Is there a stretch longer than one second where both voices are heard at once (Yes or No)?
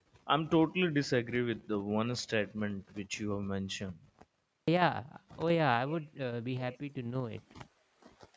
No